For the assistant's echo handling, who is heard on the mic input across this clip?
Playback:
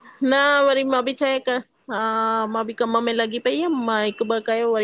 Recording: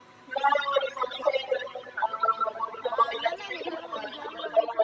both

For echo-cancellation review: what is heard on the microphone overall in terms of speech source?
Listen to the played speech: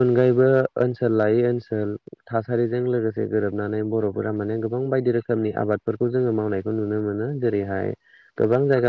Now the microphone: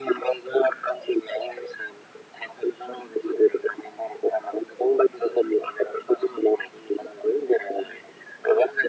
echo only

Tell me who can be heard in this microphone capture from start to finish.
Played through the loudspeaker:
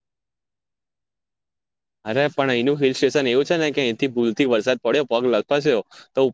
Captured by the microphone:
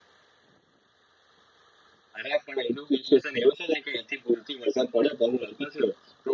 echo only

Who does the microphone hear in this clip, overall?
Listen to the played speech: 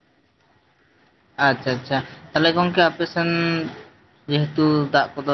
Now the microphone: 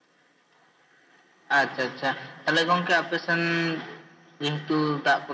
echo only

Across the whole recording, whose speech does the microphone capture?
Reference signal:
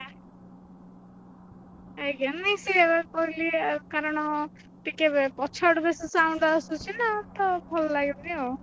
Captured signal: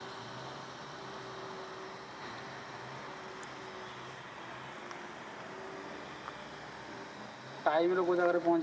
user only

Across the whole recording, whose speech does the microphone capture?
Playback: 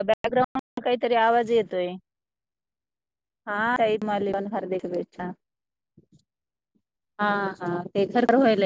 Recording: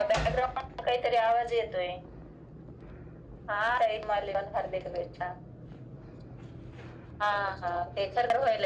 echo only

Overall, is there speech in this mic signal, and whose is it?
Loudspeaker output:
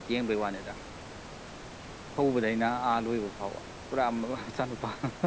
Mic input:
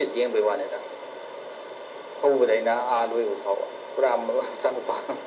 echo only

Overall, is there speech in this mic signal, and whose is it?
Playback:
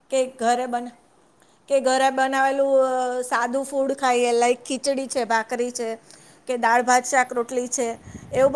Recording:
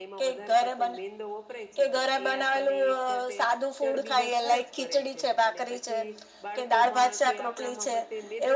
both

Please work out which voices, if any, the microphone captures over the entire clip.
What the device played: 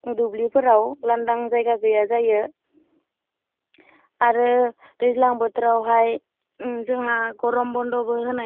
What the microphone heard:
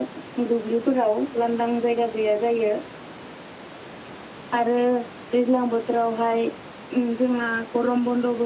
echo only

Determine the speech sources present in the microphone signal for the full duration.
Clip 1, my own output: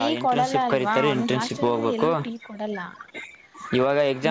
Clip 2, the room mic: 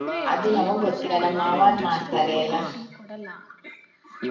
both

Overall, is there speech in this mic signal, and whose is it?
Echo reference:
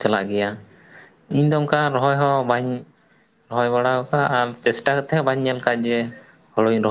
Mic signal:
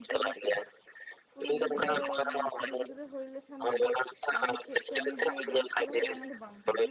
both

